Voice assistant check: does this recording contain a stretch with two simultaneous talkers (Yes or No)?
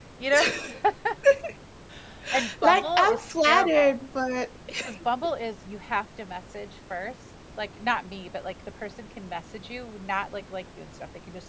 Yes